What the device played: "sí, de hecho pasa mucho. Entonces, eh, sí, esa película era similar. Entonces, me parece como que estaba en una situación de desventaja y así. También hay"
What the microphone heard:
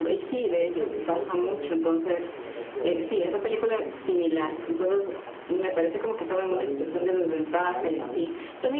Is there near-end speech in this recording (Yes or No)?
Yes